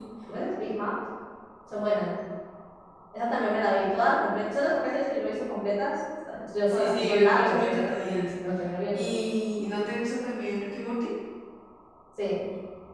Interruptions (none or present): present